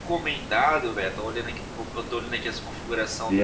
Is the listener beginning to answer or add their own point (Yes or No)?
No